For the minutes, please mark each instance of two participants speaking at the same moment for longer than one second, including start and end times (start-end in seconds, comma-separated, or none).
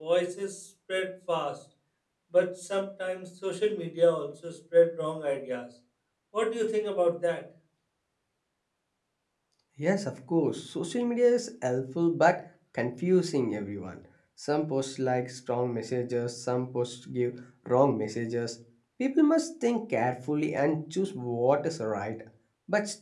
none